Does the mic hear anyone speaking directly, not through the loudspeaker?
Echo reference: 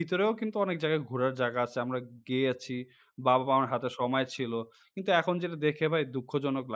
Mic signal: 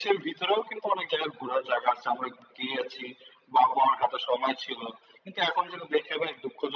No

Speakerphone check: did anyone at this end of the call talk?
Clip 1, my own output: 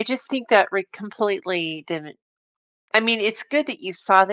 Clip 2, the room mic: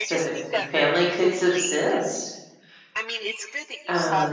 Yes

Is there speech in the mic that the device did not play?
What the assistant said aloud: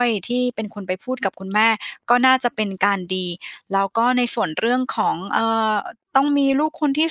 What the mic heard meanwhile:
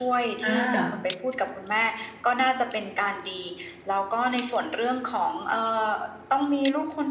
Yes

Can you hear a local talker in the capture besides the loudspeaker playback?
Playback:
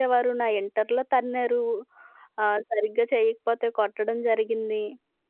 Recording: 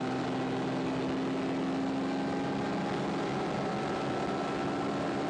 No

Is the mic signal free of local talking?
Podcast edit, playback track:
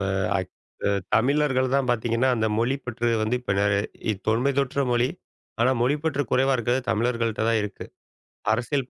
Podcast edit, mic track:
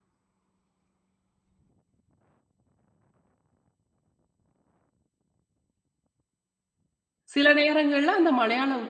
No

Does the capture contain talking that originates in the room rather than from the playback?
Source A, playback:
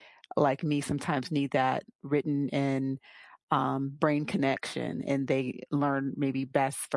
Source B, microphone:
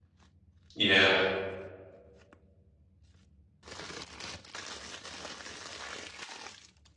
Yes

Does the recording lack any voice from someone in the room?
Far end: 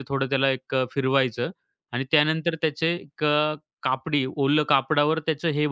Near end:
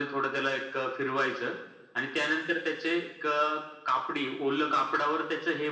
Yes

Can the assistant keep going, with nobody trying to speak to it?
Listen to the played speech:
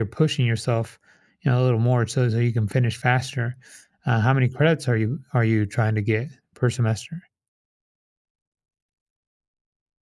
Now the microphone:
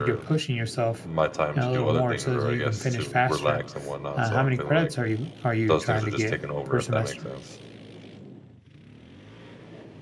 No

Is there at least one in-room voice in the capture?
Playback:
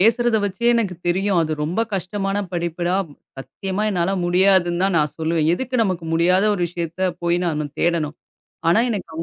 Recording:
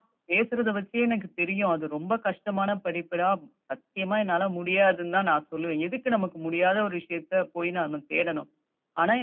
No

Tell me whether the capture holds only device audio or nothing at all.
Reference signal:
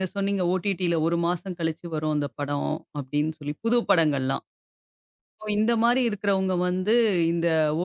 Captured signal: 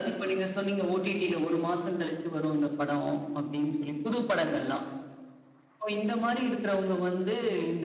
Yes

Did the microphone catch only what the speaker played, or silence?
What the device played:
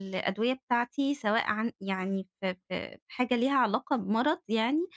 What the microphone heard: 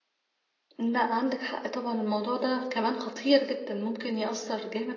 No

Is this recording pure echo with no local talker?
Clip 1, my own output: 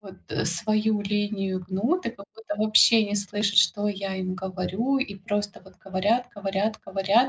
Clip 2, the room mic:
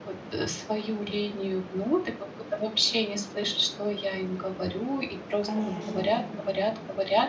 No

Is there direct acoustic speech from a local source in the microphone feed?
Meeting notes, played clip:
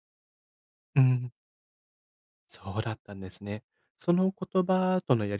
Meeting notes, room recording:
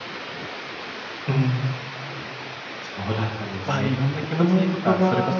Yes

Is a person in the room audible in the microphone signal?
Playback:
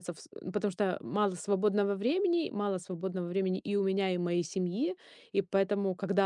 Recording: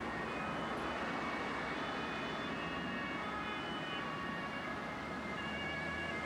No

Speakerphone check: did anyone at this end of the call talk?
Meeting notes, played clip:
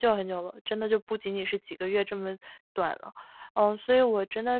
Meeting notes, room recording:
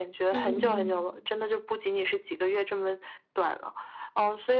Yes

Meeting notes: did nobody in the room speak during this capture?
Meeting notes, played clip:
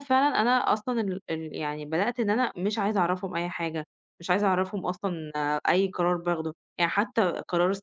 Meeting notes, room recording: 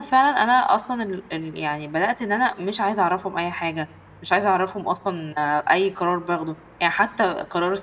Yes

